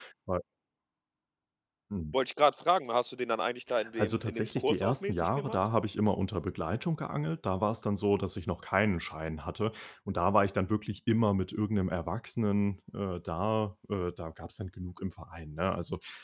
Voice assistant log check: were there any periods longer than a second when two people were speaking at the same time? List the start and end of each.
4.0-5.6

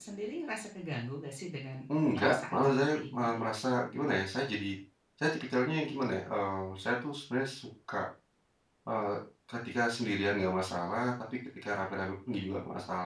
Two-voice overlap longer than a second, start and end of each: 2.2-3.4

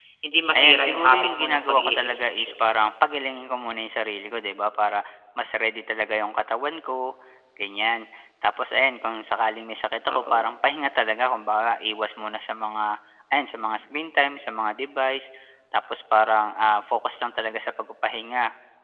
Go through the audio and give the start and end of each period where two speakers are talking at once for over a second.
0.5-2.5

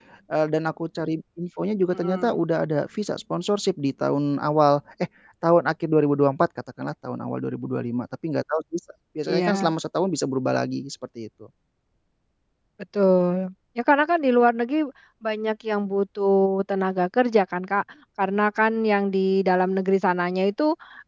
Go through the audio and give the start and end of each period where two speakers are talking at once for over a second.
none

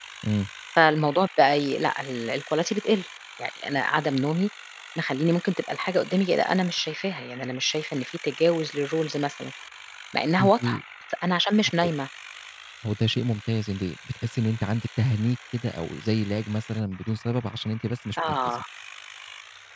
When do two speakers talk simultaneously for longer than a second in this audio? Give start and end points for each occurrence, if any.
none

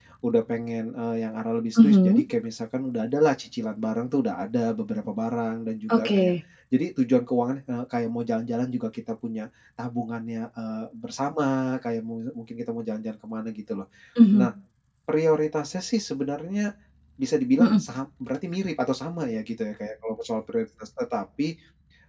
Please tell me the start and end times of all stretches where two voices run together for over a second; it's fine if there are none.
none

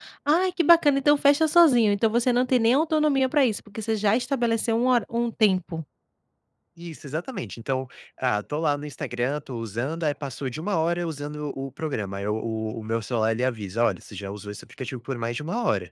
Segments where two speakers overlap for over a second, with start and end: none

